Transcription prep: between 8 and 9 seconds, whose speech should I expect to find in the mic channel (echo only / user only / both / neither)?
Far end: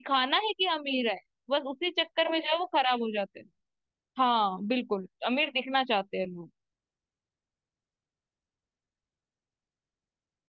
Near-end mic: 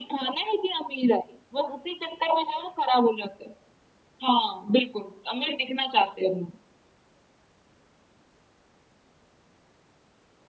neither